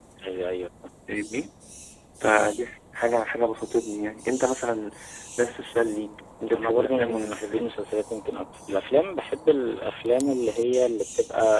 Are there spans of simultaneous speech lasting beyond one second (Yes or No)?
Yes